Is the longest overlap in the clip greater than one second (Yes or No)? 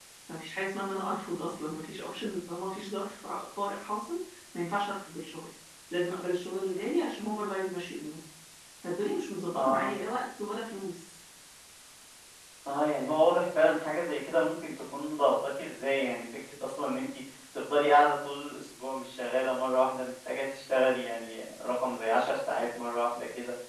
No